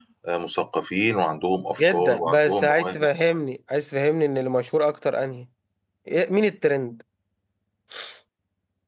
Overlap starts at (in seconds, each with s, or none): 1.8 s